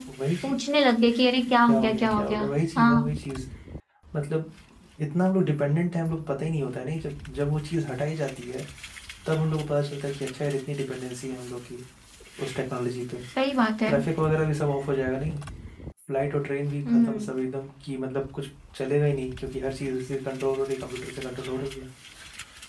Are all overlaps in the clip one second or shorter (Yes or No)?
No